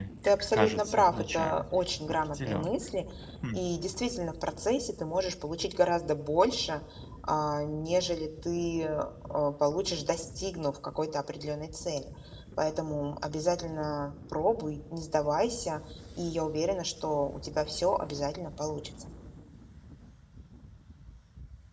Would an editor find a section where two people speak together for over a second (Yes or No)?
Yes